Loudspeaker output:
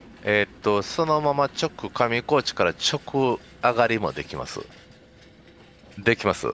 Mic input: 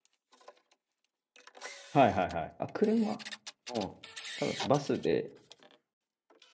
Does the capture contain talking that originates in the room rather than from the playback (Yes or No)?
Yes